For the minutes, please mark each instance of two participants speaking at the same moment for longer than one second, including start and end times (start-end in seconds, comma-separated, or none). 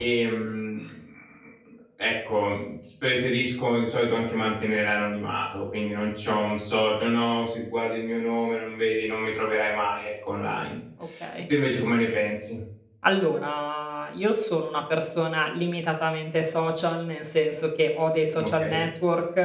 none